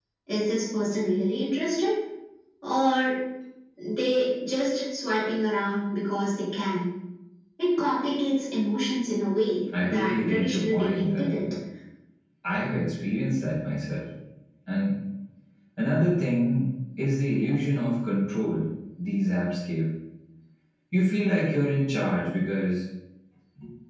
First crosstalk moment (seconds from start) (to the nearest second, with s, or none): 10 s